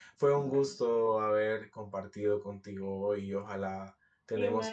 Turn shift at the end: No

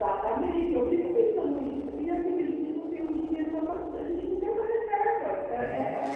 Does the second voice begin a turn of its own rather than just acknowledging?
No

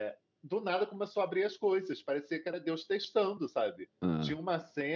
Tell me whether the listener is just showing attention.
Yes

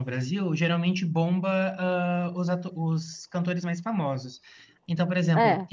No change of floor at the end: Yes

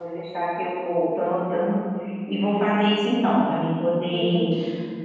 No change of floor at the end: No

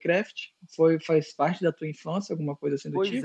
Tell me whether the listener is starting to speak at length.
Yes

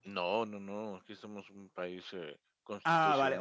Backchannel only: No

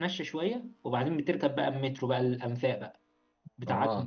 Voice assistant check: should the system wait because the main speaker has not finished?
No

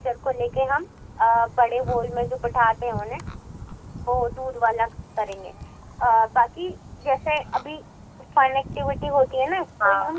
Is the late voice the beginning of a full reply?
No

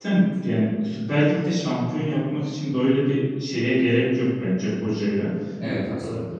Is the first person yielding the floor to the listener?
No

